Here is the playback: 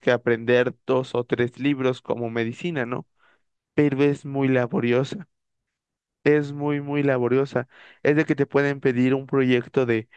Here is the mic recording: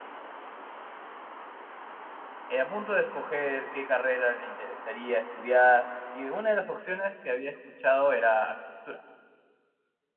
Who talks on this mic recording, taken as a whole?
user only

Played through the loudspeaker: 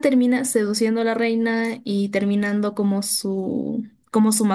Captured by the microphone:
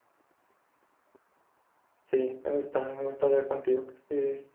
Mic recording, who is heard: user only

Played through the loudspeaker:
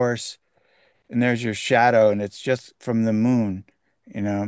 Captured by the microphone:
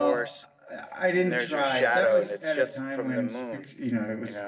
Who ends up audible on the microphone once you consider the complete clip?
both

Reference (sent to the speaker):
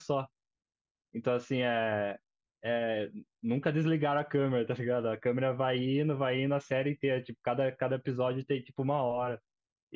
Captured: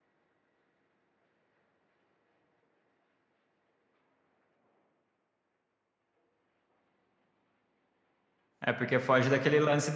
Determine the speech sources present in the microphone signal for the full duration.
user only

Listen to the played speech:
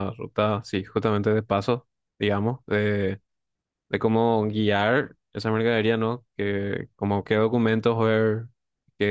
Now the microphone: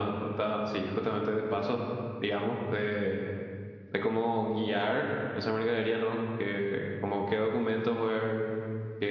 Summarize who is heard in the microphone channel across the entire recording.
echo only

